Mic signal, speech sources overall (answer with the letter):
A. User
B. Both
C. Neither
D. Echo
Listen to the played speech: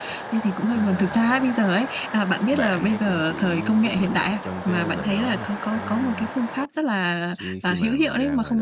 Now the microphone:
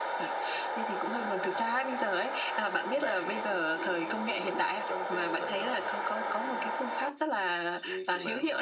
D